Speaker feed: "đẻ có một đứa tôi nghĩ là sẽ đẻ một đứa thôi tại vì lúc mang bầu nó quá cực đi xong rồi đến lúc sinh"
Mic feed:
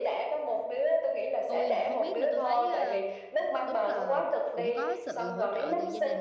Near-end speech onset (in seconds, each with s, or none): 1.5 s